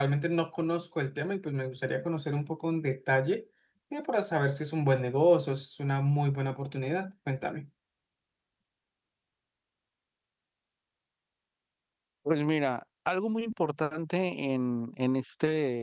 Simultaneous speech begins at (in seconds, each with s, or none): none